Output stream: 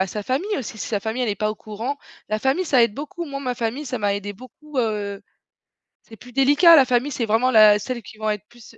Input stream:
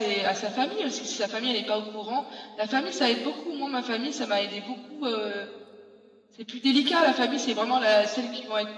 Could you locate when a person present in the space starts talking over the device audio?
none

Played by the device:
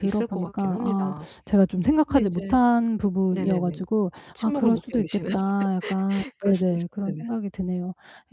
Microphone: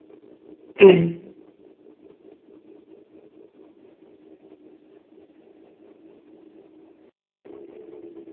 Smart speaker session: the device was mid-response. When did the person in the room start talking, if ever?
1 s

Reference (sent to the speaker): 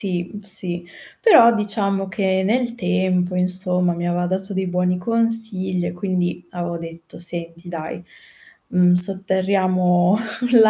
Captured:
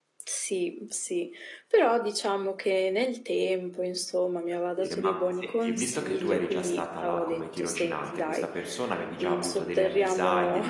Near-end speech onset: 4 s

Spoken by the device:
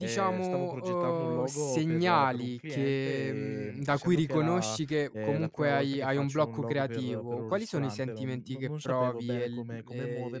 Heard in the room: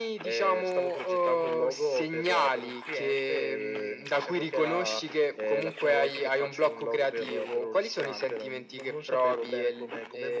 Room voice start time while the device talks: none

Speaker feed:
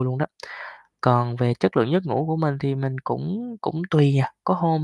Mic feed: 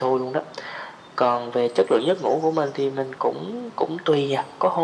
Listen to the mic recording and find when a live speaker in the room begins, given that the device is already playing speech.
none

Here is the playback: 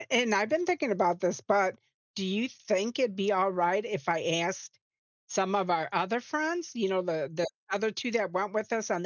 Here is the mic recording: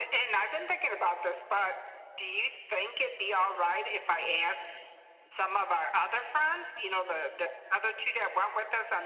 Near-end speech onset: none

